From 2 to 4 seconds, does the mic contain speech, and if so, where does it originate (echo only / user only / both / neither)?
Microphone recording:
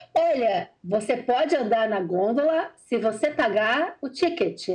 echo only